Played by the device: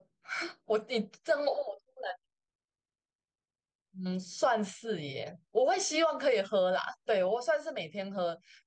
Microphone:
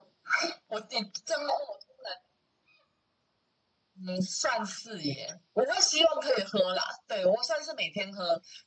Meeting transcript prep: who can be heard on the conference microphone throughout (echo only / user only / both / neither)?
echo only